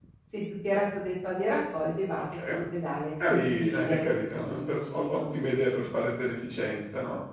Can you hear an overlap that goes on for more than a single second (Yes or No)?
Yes